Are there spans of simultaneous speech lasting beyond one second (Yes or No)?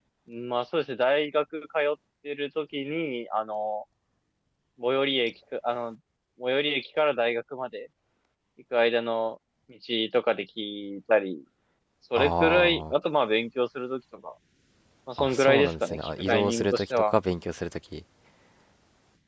Yes